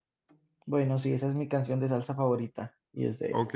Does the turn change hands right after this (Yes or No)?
Yes